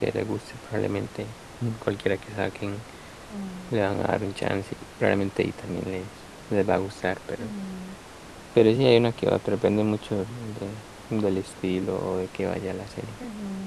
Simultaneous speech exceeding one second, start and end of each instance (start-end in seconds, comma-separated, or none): none